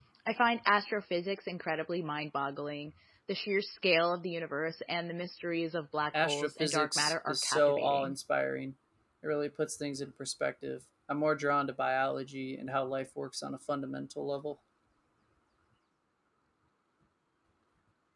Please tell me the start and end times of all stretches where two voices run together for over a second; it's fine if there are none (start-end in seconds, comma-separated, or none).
6.1-8.1